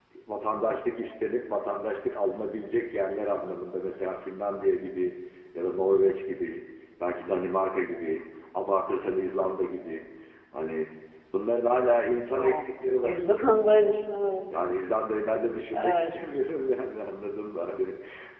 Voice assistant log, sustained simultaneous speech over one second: none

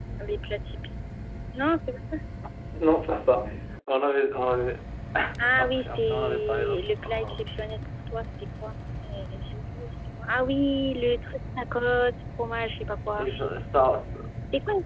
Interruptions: present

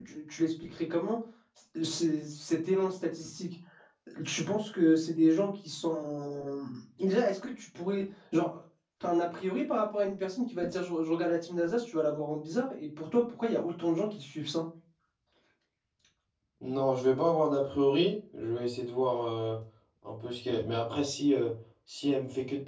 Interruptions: none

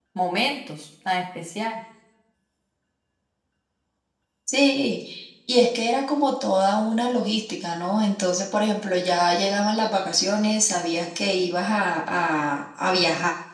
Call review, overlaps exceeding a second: none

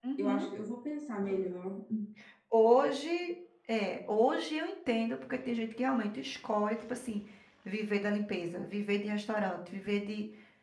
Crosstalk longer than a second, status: none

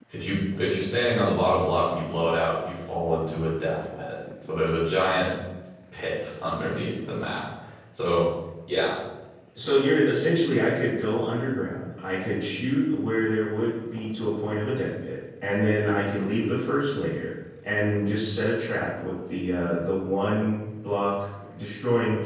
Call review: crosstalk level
none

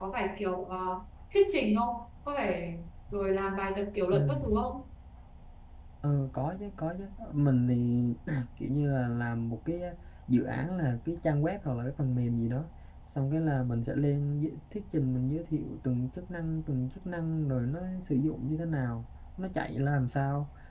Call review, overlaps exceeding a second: none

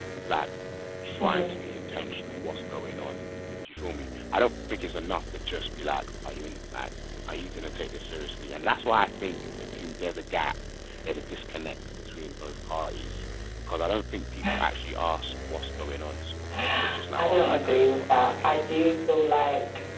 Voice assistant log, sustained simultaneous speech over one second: present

